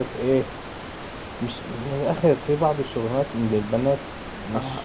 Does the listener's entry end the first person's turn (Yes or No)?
Yes